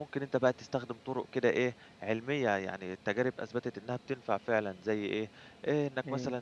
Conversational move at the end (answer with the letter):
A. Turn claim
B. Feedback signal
B